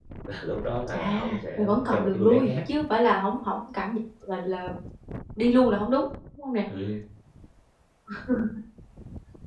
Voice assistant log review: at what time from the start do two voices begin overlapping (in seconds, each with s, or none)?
0.9 s